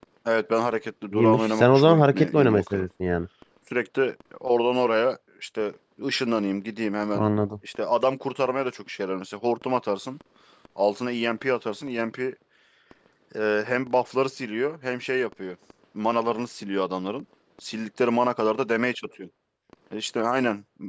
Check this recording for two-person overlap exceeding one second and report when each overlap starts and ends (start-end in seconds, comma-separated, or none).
1.1-2.8